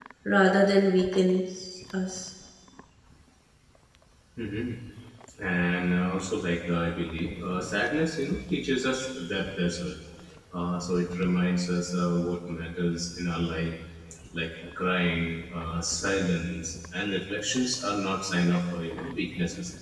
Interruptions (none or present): none